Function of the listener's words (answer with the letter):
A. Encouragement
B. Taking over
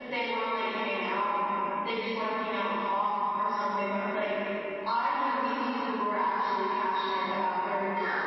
B